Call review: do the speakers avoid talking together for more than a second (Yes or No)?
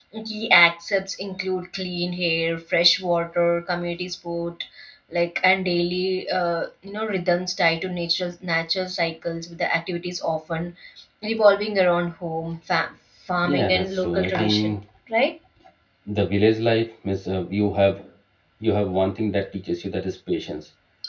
No